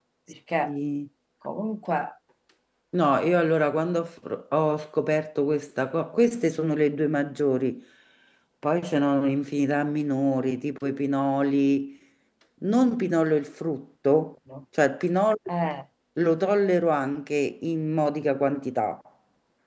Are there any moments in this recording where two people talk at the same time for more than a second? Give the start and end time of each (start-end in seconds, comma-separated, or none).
none